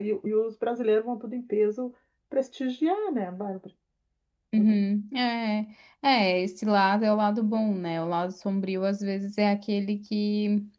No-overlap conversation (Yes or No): Yes